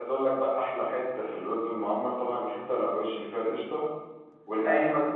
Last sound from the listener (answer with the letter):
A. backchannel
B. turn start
A